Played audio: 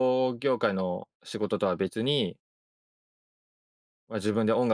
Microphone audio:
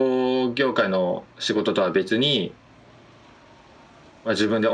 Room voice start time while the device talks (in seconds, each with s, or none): none